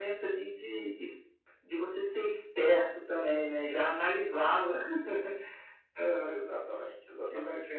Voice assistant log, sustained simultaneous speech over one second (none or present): none